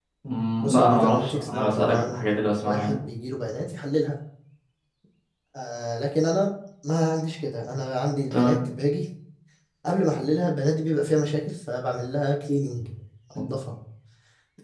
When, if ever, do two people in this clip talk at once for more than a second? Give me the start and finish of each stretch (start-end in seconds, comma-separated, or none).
0.6-2.2